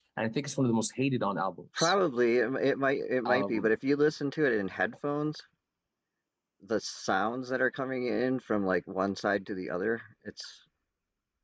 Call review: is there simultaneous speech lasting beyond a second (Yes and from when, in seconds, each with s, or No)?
No